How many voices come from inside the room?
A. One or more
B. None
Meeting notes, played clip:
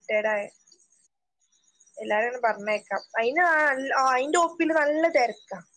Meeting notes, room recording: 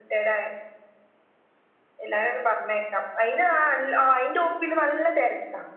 B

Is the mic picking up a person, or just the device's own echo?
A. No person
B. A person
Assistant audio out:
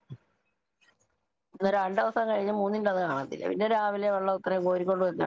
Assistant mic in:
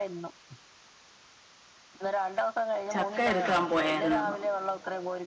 B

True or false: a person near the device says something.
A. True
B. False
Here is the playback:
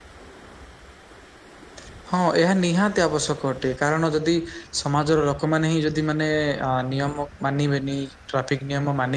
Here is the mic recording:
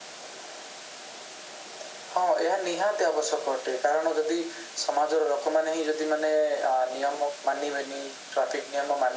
B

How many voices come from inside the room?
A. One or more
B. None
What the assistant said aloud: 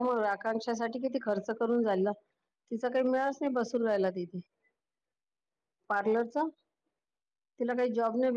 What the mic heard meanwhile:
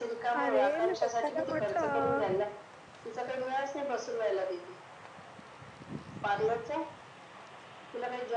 A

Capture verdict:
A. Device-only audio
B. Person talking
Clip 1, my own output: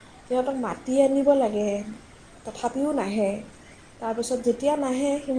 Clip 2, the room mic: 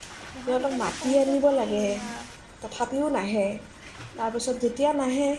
B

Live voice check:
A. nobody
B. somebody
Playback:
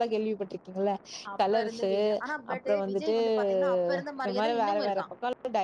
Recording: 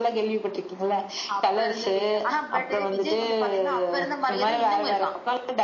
A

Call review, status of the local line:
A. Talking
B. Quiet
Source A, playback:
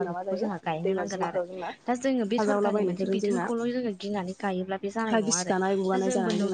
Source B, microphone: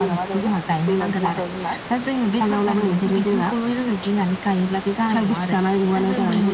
B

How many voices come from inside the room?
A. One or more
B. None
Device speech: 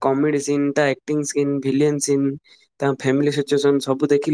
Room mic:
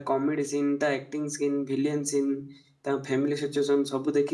B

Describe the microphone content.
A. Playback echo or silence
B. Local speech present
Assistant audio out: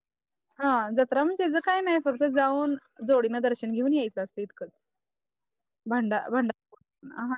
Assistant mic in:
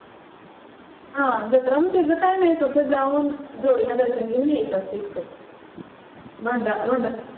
A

